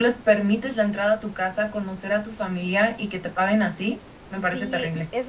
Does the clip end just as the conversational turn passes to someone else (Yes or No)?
Yes